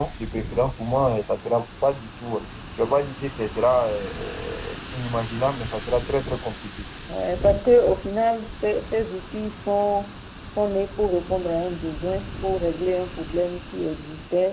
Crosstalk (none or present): none